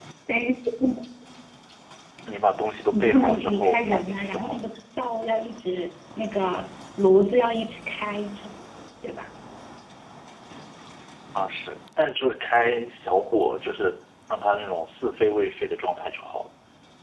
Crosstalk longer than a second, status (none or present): present